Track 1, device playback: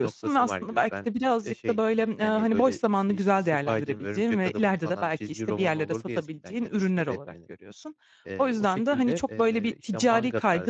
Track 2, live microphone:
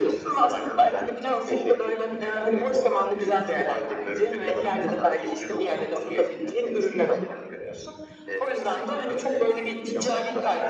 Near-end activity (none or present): none